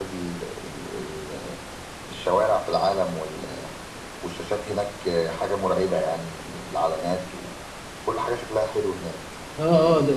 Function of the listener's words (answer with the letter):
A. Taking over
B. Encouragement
A